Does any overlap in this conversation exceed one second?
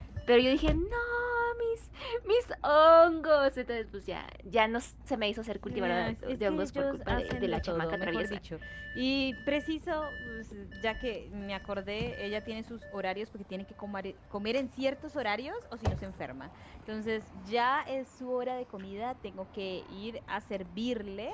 Yes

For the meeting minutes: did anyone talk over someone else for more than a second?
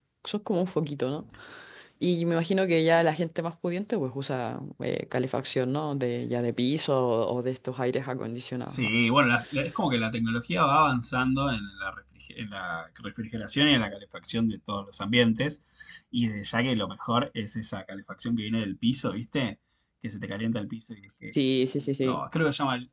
No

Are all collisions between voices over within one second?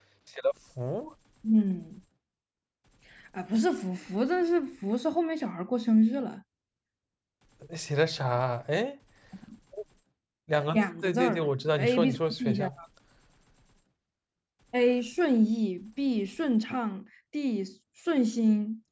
No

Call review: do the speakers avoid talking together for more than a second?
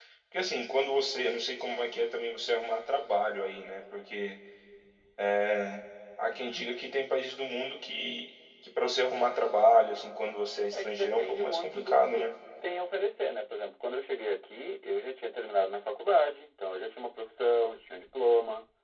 No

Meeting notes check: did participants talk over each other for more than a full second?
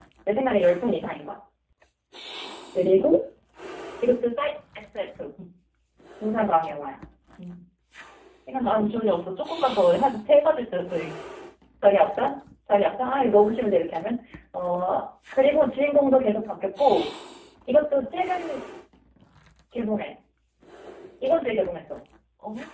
No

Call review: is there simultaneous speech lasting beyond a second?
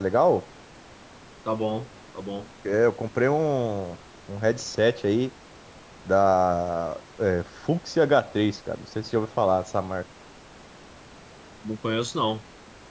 No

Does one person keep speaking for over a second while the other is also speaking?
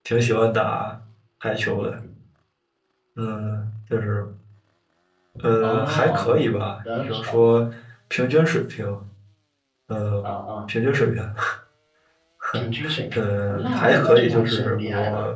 Yes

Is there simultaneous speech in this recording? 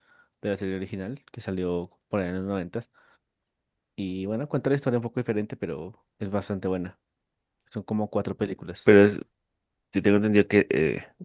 No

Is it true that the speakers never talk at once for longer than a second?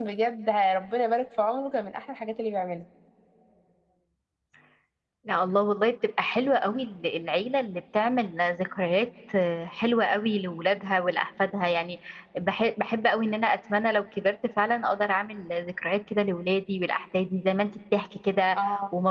Yes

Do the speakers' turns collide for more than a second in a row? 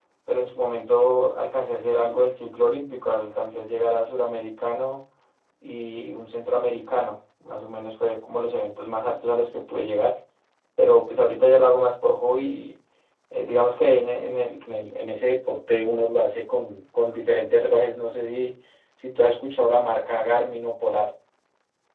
No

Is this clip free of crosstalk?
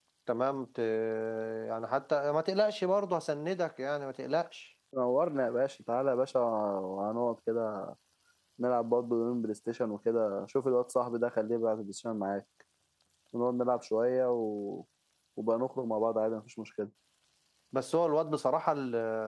Yes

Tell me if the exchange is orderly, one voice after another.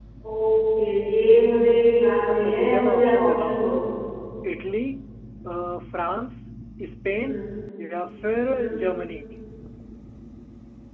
No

